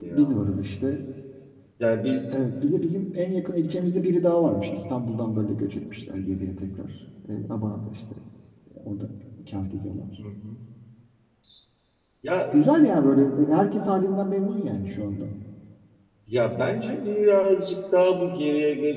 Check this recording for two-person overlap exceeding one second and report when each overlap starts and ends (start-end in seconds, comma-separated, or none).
none